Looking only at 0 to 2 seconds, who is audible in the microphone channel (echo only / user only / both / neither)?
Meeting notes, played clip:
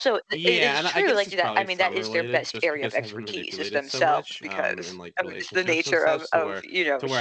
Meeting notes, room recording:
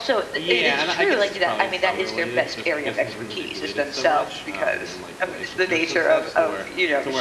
echo only